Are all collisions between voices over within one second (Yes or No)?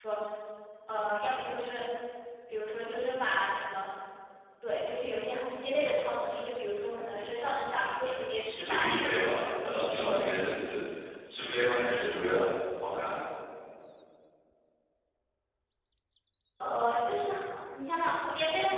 No